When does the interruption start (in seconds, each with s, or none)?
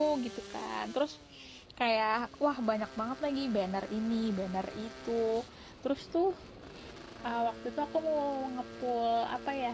none